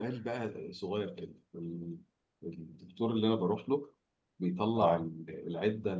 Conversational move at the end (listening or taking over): listening